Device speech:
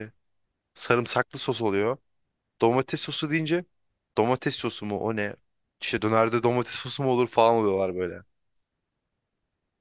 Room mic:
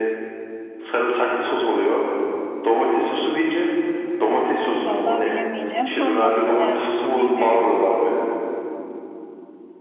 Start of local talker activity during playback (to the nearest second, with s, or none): 5 s